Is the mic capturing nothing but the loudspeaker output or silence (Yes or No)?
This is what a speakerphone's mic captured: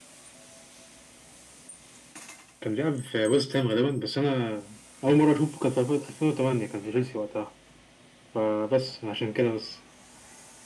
Yes